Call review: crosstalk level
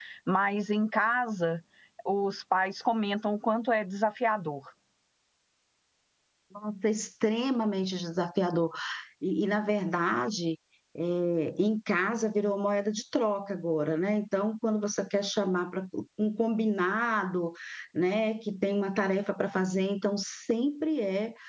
none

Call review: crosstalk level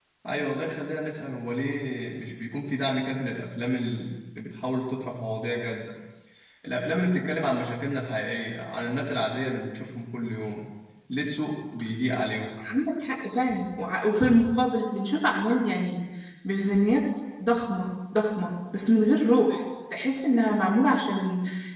none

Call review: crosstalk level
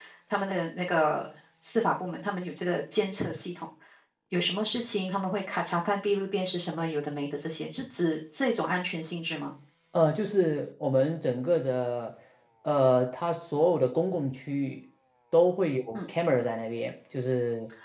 none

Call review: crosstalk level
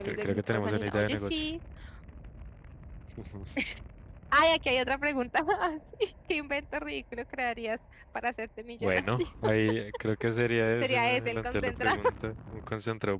present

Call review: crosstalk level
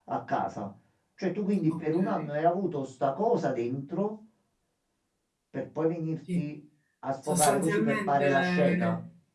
present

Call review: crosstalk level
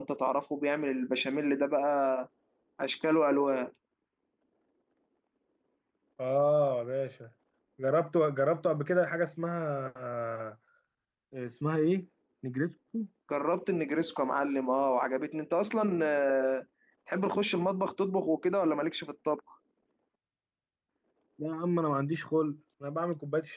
none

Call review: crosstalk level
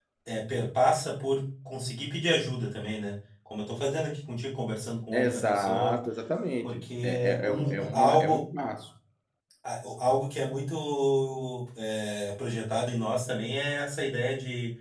present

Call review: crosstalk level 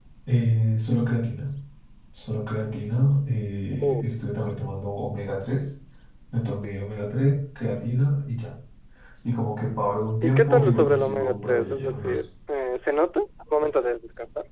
present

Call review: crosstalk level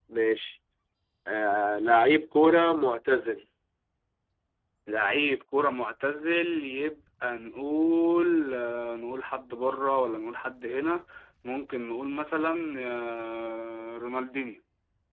none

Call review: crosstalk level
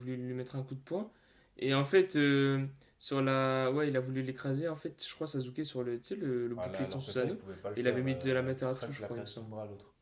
present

